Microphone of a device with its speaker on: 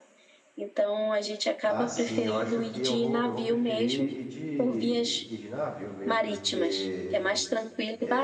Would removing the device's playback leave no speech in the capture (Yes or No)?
No